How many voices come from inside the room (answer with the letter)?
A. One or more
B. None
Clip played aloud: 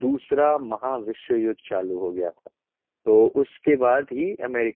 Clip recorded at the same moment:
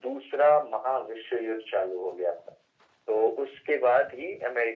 B